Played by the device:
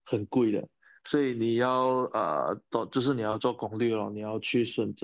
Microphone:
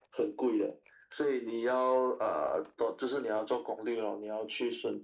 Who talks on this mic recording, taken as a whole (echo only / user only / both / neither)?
echo only